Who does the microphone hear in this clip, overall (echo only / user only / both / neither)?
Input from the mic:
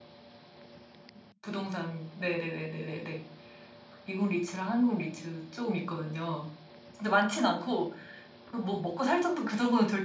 user only